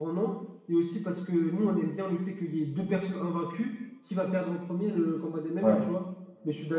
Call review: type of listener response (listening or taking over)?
listening